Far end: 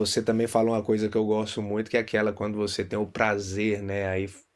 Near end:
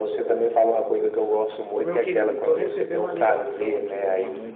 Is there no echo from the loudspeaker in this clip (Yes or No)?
No